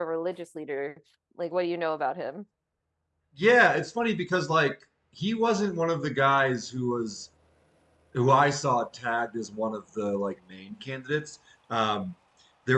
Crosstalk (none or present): none